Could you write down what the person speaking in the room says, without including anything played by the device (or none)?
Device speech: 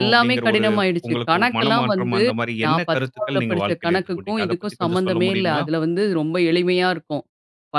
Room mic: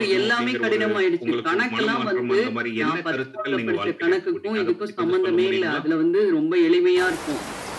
none